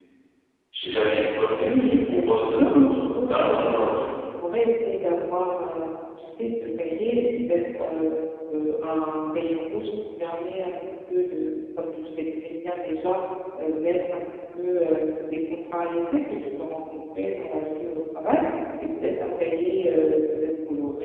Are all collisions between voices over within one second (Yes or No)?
No